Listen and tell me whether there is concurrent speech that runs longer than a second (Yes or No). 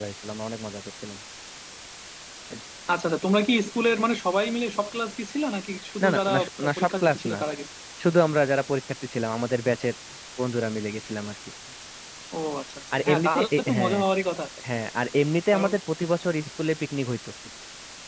Yes